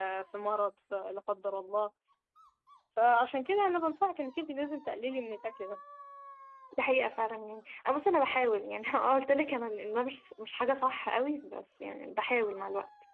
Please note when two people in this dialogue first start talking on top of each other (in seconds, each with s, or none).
none